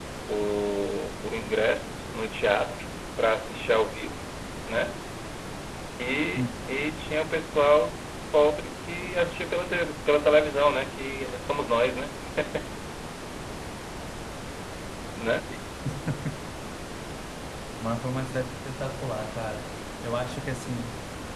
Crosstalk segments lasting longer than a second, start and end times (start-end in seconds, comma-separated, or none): none